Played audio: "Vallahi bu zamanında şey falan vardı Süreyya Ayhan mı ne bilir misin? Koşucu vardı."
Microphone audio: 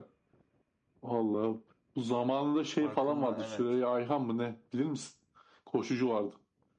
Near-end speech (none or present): present